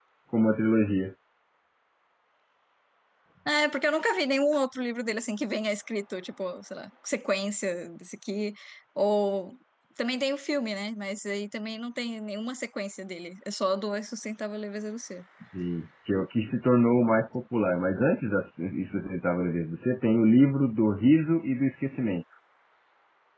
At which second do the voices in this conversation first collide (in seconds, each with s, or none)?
none